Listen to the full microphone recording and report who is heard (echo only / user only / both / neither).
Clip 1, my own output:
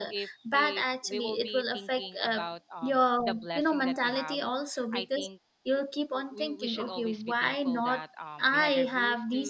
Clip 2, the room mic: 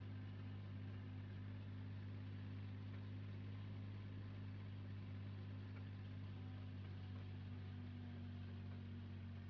neither